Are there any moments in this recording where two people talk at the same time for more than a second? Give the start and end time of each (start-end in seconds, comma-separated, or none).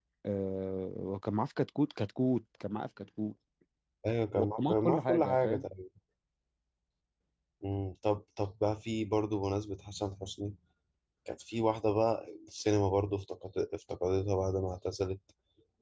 4.4-5.6